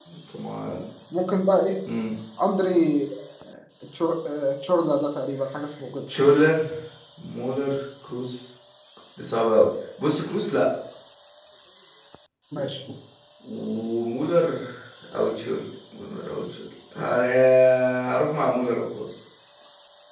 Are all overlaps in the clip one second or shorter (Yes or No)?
Yes